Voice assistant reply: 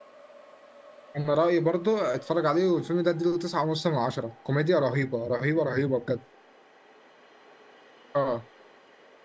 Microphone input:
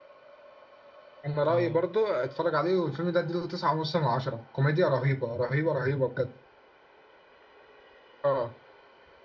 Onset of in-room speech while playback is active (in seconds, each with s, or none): 1.4 s